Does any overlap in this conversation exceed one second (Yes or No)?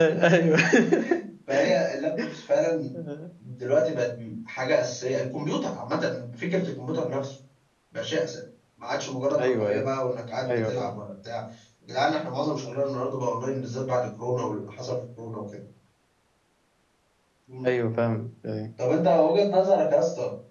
No